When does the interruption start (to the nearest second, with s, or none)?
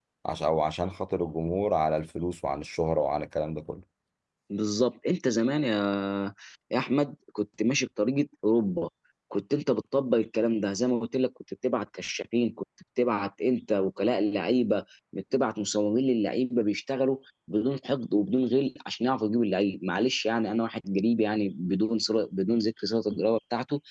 none